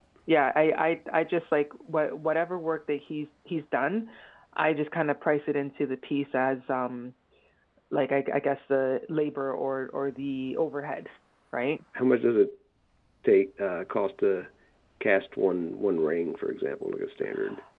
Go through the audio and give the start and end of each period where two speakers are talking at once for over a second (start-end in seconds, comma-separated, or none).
none